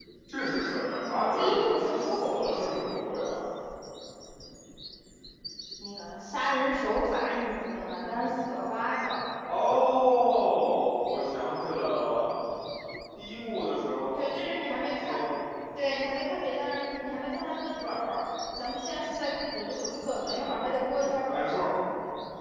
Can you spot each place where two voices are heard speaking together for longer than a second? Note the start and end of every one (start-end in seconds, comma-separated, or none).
1.1-2.6